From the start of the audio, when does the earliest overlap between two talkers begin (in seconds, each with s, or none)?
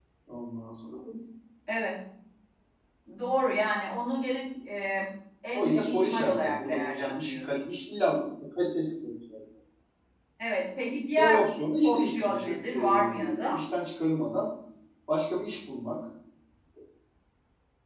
5.5 s